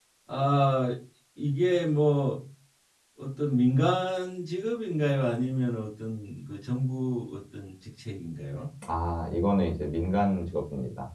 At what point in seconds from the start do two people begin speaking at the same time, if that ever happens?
none

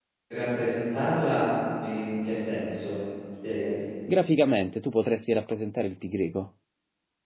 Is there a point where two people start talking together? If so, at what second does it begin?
none

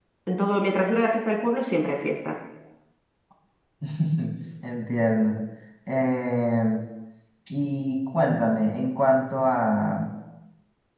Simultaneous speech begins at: none

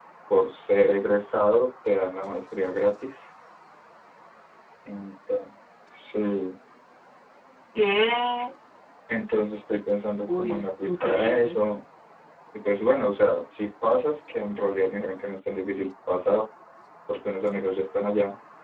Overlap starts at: 10.3 s

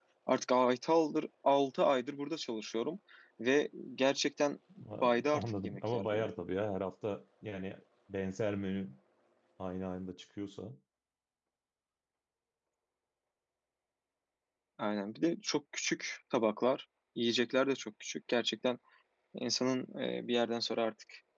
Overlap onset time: 5.0 s

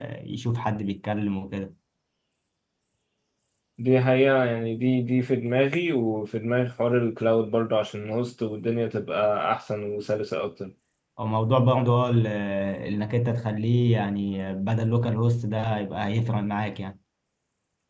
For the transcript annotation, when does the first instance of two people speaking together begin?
none

